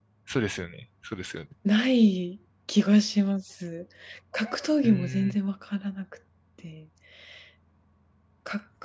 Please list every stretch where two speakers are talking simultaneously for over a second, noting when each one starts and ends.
none

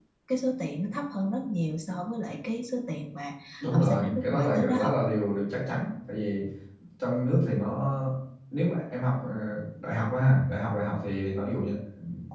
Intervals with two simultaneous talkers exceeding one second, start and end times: 3.7-5.0

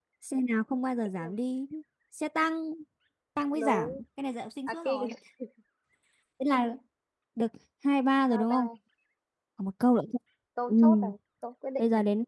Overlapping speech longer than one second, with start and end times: none

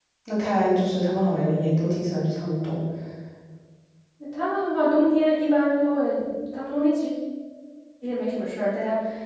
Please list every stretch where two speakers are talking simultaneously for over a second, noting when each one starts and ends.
none

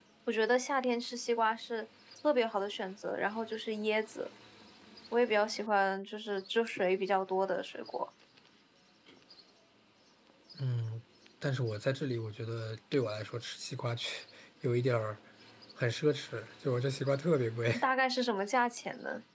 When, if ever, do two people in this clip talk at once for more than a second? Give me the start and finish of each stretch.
none

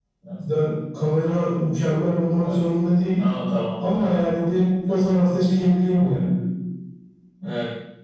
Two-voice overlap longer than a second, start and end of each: none

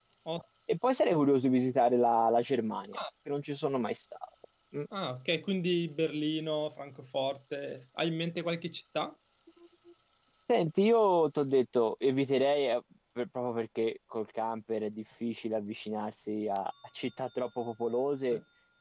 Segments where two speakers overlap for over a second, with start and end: none

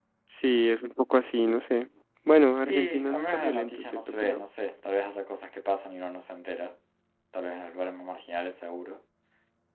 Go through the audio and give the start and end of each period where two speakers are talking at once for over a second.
2.6-4.4

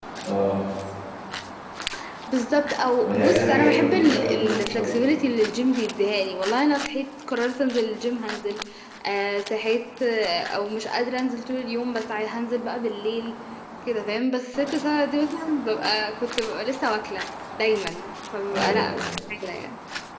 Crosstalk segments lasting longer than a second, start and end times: 3.0-4.9

